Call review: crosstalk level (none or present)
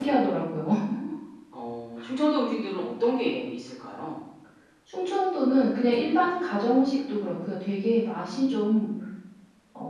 none